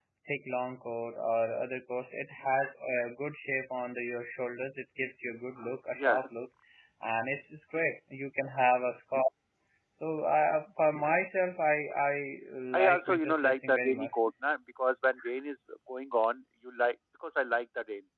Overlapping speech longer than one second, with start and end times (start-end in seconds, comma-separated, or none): 12.7-14.2